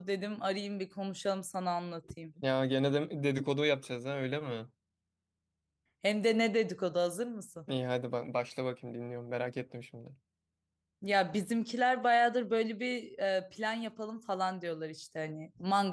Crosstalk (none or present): none